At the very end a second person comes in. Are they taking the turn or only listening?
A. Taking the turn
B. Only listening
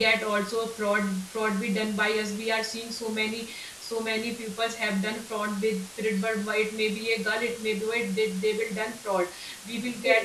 B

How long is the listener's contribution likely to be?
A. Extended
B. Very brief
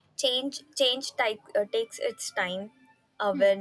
B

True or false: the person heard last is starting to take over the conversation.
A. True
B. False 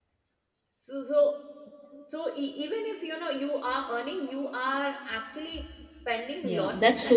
A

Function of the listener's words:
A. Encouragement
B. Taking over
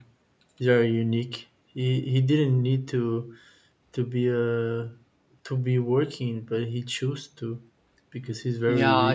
B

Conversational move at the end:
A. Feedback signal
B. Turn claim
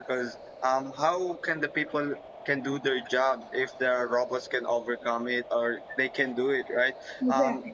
A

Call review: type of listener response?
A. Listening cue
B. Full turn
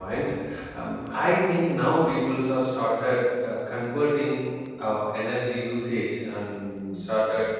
A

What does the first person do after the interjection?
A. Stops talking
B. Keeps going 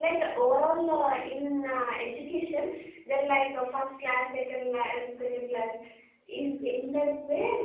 B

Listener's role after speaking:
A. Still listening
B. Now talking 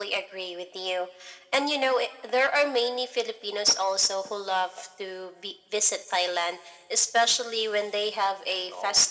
A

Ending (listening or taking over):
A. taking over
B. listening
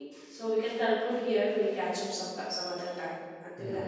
A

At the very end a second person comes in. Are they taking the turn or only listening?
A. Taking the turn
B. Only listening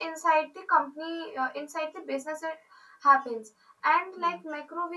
B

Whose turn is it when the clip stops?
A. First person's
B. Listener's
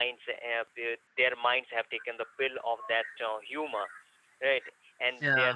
A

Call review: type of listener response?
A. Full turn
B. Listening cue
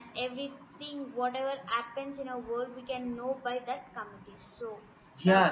A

